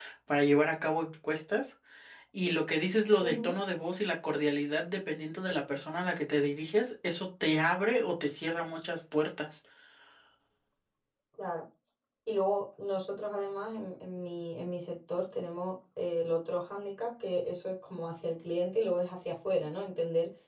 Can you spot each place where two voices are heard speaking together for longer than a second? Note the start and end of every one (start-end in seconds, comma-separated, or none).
none